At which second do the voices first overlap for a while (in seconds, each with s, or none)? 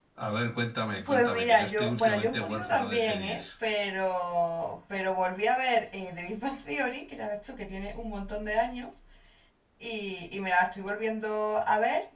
1.1 s